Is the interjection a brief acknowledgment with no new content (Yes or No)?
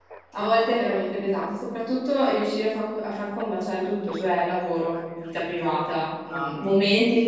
Yes